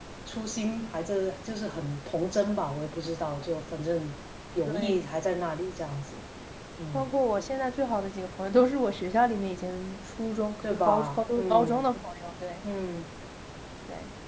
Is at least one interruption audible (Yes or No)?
Yes